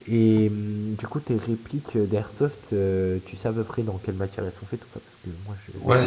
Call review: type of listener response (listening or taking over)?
taking over